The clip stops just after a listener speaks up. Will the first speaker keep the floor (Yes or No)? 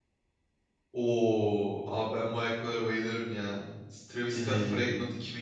Yes